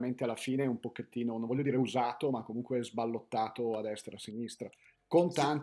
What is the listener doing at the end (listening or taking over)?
listening